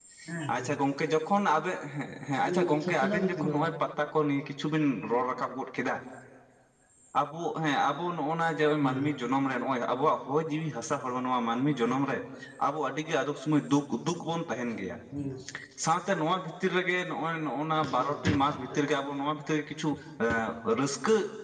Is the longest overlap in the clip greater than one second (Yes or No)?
Yes